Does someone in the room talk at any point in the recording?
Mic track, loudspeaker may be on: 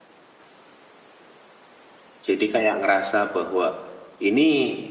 Yes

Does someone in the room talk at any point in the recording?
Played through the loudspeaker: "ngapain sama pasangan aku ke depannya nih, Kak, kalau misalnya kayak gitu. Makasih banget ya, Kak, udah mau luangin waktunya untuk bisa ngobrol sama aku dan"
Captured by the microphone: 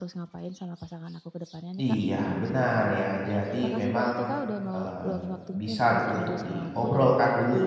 Yes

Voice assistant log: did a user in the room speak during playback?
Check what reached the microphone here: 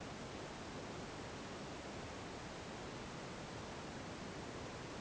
No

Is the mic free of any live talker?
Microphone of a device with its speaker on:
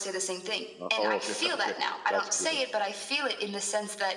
No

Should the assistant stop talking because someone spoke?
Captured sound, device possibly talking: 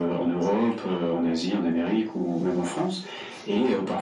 No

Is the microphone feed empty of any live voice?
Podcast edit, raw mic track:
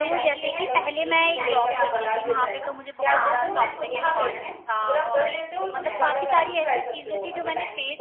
No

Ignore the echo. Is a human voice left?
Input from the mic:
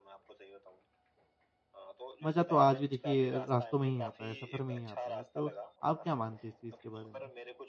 Yes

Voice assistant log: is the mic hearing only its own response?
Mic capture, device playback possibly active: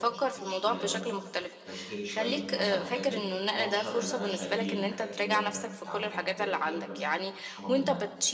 No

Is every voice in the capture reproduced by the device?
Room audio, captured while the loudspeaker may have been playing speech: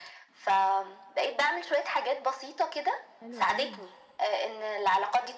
No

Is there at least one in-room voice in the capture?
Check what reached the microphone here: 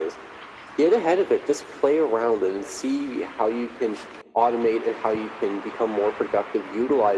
No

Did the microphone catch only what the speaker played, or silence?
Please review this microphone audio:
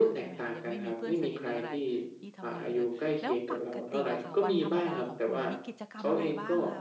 No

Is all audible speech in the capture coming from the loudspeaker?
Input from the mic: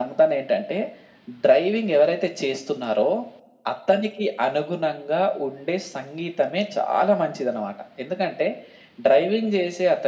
Yes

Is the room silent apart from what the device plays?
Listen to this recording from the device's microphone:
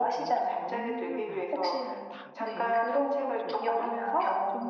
No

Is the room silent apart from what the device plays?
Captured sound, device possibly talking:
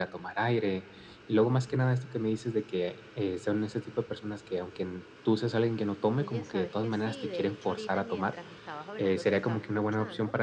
No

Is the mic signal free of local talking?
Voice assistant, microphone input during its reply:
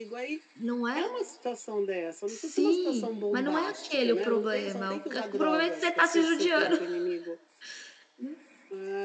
No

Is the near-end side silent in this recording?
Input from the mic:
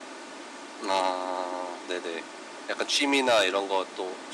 Yes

